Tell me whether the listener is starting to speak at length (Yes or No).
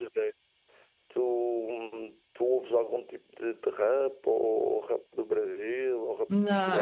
Yes